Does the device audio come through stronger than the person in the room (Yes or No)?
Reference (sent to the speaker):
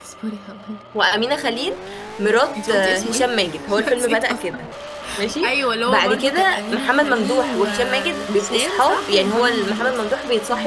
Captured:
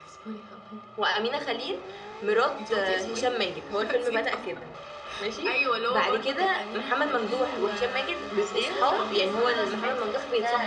Yes